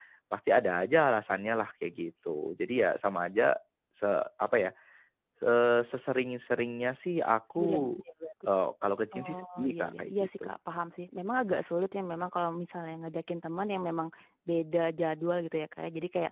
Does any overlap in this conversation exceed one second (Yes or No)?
Yes